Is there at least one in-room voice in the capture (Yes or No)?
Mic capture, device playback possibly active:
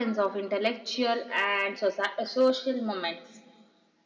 No